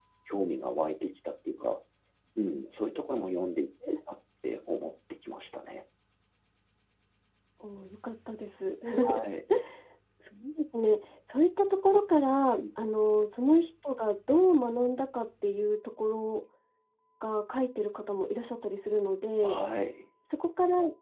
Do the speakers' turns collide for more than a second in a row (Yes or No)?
No